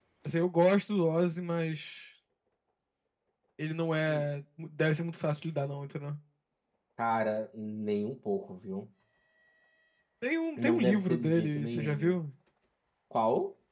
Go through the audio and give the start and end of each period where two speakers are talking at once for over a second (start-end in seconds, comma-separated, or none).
10.6-12.2